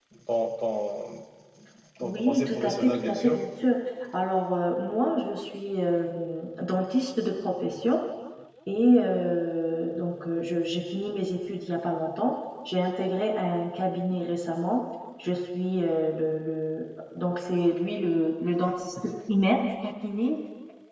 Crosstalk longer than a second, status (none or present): present